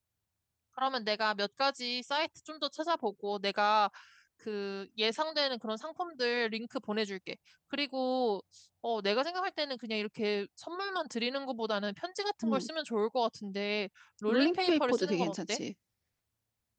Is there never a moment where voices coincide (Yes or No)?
No